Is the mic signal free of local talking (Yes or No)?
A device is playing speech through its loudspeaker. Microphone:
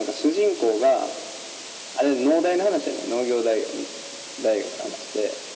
Yes